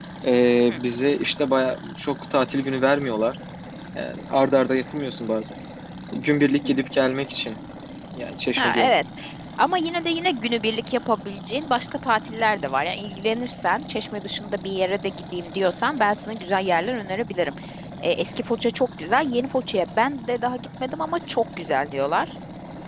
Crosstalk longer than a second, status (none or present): none